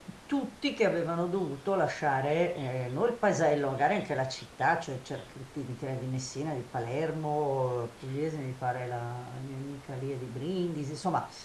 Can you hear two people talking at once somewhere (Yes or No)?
No